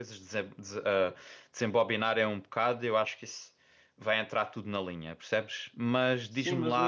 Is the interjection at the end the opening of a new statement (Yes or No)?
Yes